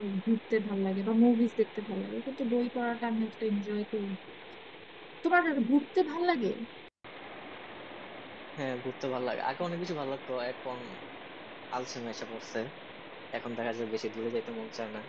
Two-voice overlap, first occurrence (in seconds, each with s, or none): none